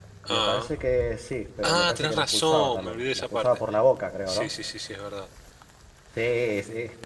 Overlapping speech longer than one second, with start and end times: 1.6-3.6

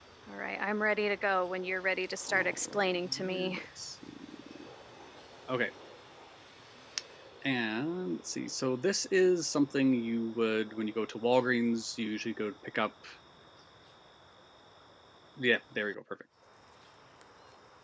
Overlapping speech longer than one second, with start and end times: 2.3-3.6

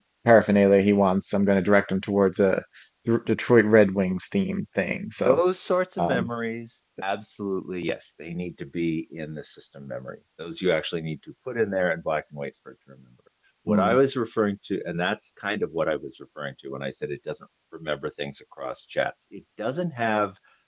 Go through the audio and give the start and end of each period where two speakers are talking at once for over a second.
none

